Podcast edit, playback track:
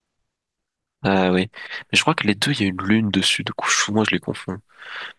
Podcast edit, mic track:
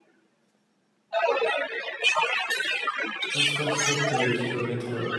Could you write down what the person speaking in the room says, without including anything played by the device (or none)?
160 km